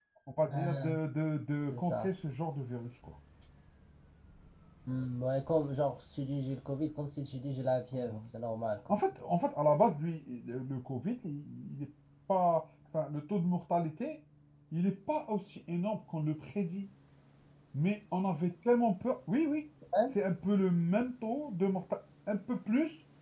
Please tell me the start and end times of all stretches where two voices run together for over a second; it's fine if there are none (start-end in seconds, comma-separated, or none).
none